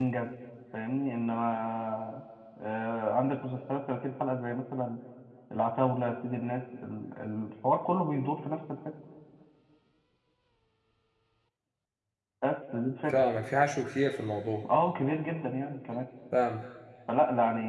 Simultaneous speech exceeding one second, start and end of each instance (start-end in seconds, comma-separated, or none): none